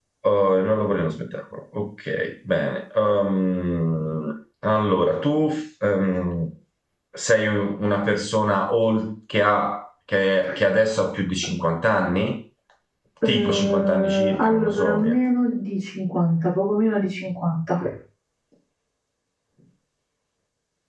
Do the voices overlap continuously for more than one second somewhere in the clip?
Yes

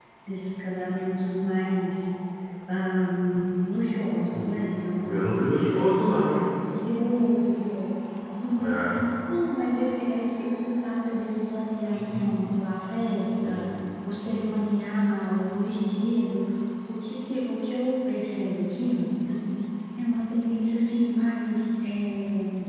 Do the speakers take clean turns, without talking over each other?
No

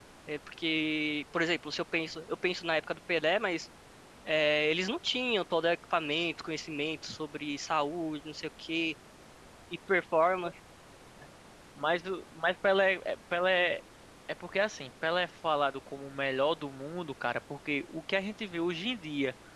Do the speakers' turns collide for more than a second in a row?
No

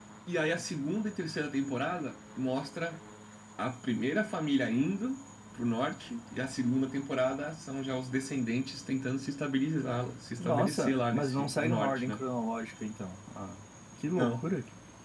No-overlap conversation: No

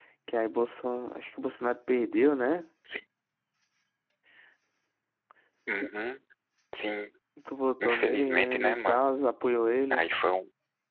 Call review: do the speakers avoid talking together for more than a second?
No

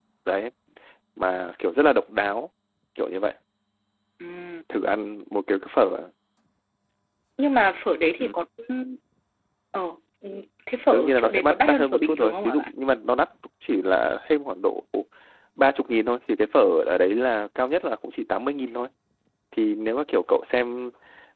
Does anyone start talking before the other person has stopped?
Yes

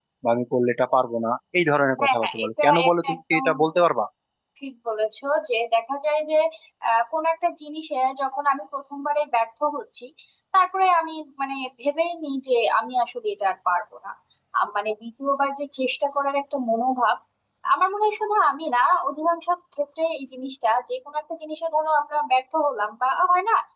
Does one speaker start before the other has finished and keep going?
Yes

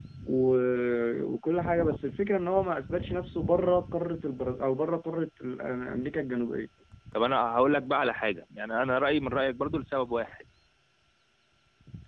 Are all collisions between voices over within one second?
Yes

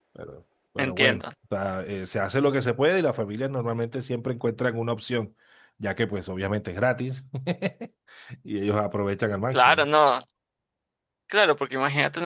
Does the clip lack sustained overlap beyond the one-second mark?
Yes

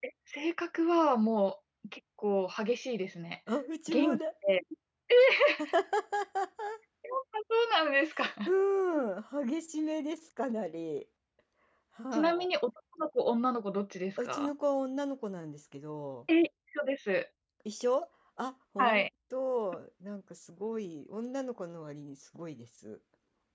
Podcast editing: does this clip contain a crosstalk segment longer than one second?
No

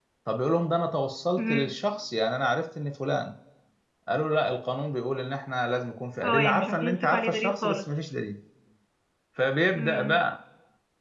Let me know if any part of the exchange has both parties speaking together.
Yes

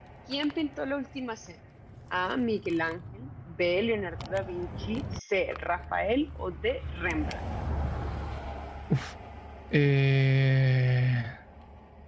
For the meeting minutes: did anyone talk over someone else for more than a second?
No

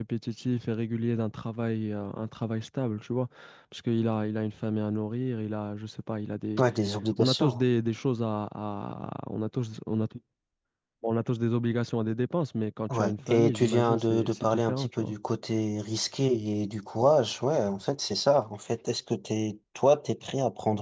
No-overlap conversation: No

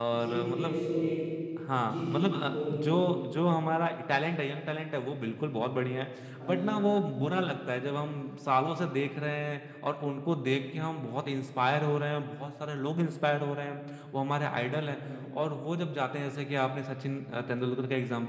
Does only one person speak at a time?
No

